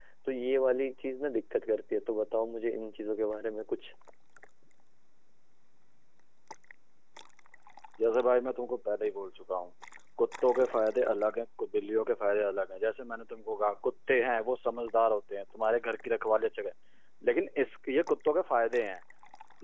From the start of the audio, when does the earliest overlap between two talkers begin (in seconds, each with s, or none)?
none